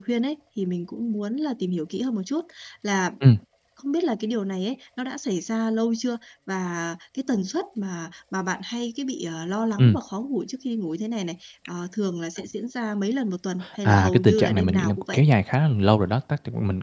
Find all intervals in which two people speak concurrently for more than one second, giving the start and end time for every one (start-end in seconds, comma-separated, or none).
13.8-15.2